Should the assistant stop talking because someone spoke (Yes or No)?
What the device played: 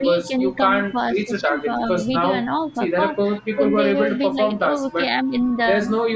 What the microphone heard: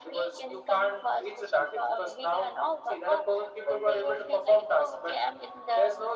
No